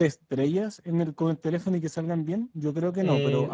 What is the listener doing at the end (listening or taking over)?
taking over